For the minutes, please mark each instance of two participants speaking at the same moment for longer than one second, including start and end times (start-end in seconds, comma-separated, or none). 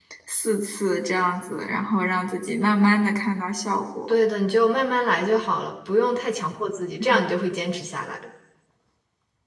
none